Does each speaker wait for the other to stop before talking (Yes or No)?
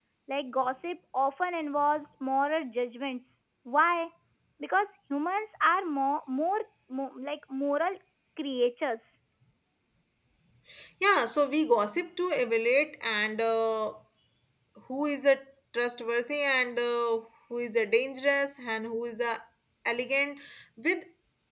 Yes